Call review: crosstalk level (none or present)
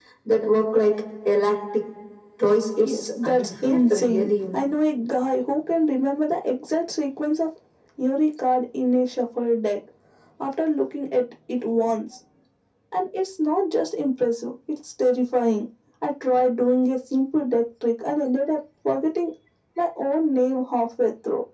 present